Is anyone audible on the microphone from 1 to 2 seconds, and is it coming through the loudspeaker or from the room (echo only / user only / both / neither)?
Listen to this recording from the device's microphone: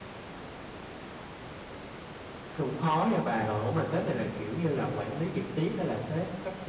neither